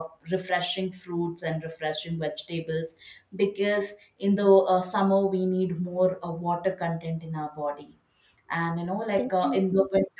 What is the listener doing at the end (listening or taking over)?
listening